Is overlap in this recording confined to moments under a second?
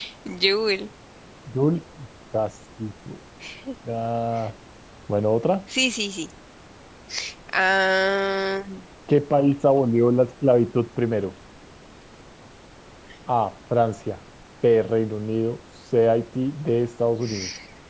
Yes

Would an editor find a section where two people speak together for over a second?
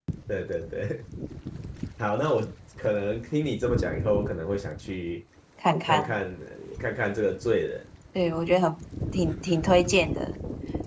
No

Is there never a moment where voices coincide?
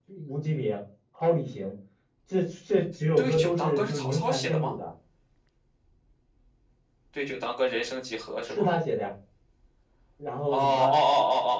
No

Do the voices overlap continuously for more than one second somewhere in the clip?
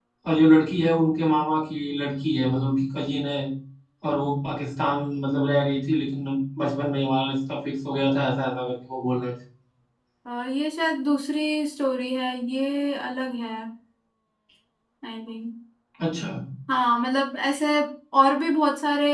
No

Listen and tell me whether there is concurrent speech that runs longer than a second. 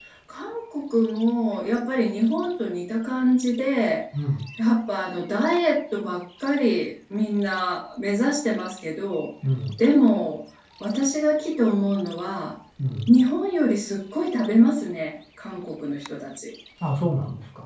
No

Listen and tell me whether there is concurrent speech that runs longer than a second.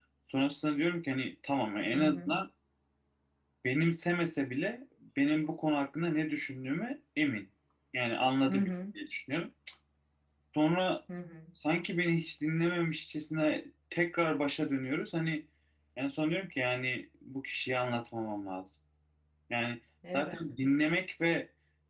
No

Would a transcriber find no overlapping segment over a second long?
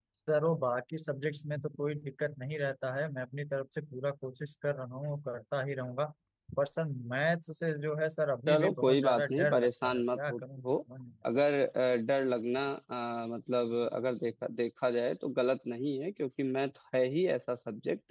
No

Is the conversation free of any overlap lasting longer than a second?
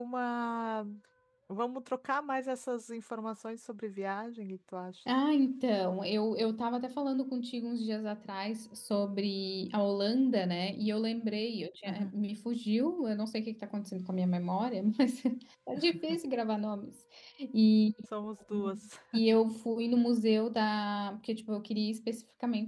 Yes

